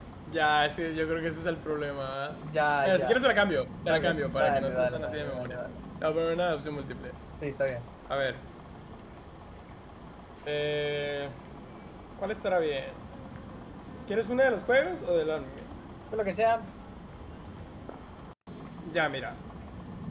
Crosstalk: present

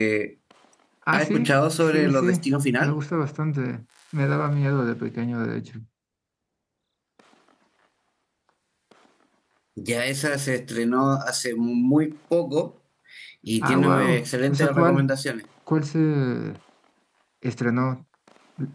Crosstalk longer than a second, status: present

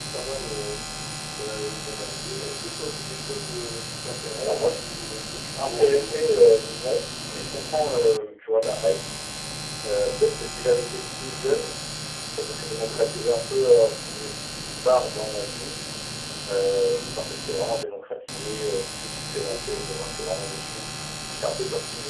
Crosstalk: present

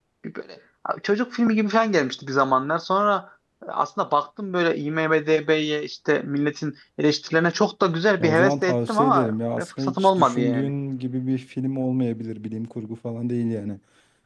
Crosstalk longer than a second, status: present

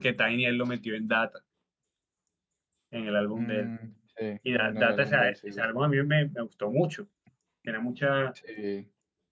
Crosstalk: present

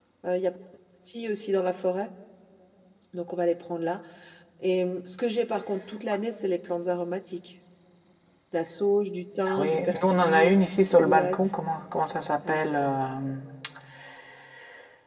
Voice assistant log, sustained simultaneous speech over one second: present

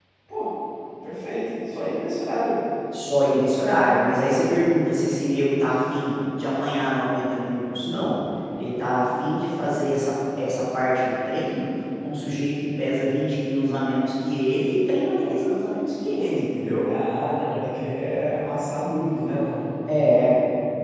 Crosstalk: none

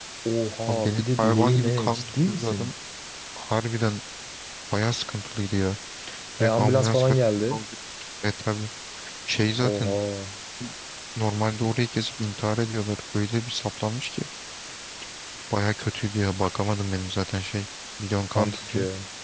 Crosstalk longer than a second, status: present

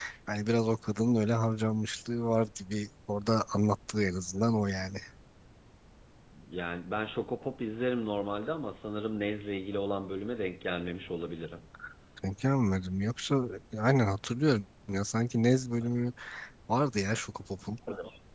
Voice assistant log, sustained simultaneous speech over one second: none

